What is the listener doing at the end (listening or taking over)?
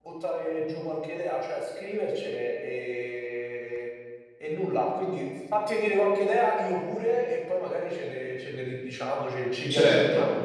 taking over